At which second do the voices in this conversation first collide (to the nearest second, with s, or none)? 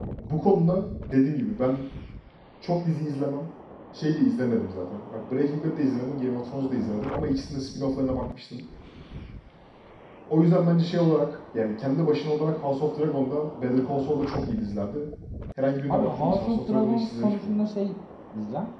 16 s